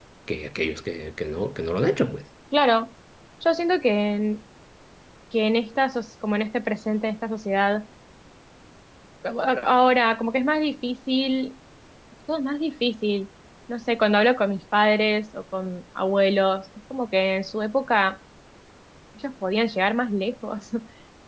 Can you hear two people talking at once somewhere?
No

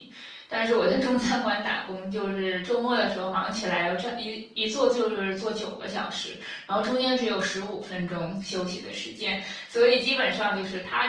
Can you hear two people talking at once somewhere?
No

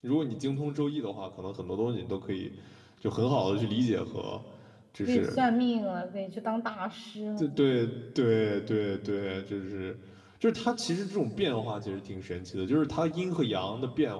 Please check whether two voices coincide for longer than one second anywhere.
No

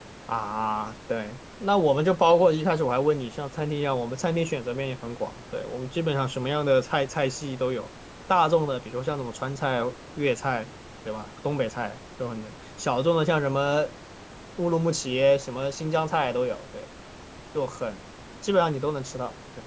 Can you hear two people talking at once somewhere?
No

